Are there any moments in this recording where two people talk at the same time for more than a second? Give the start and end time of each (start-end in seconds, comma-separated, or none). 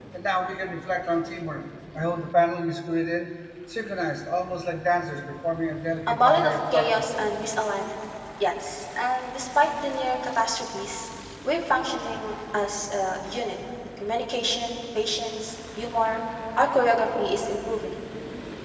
6.1-7.3